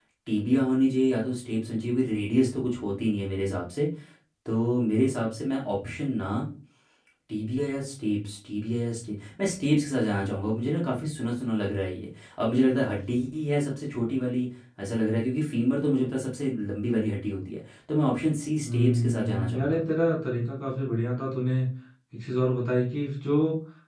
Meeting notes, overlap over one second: present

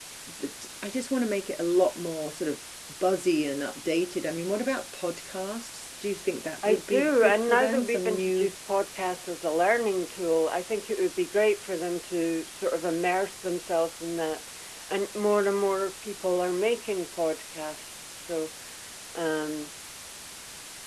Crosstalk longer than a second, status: present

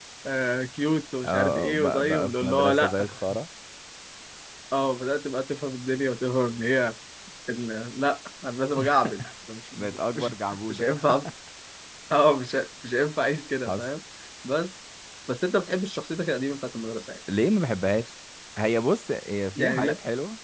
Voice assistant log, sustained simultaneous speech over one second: present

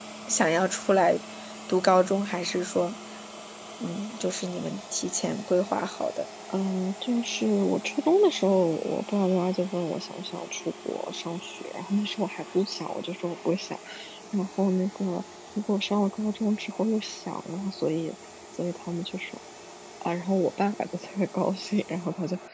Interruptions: none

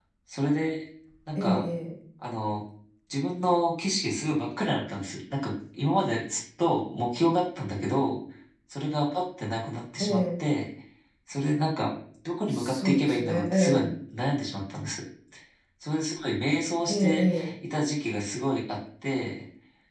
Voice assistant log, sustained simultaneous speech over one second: present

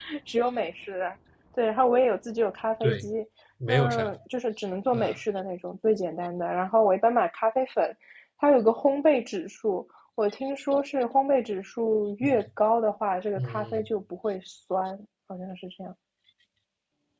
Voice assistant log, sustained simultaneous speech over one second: none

